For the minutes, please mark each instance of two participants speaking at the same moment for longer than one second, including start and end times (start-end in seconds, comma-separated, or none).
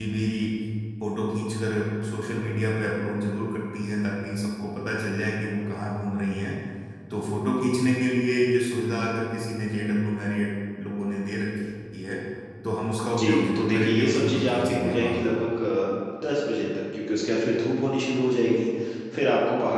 13.0-15.4